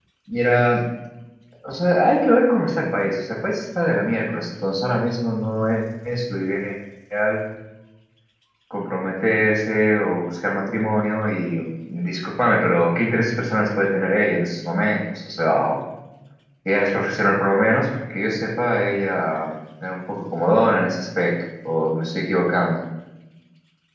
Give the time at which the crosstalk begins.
none

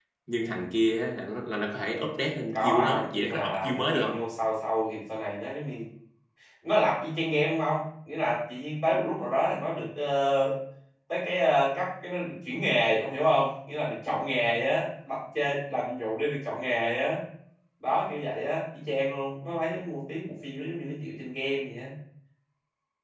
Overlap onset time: 3 s

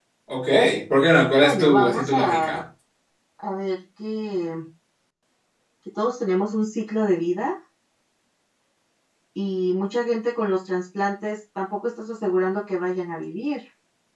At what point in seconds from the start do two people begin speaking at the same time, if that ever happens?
1 s

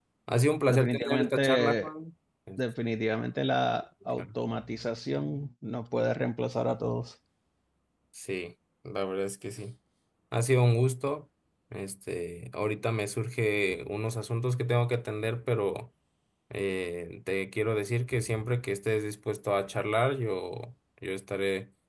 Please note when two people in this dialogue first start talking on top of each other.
1 s

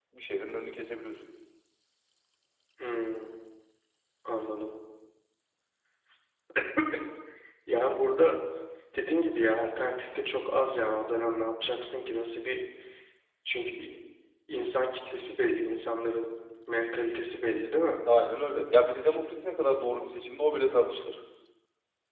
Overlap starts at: none

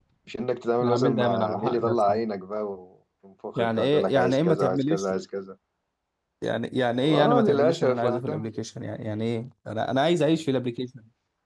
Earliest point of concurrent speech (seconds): 1 s

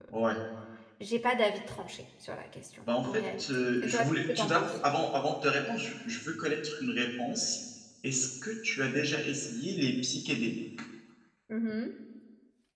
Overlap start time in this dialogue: 3 s

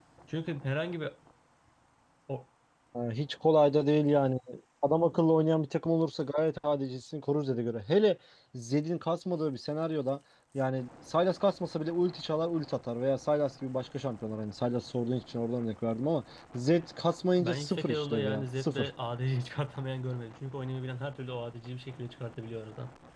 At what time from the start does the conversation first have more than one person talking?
17 s

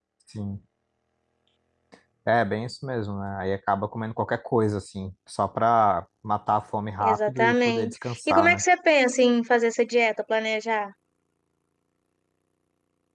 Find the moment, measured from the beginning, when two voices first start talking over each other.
7 s

